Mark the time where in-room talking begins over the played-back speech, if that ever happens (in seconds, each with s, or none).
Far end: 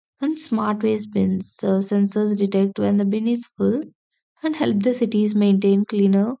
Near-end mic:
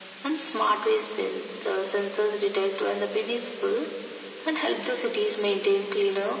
none